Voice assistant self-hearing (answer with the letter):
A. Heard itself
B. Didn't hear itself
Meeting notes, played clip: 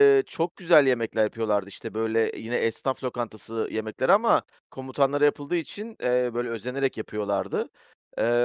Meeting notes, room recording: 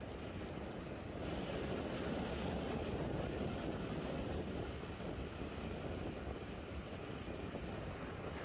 B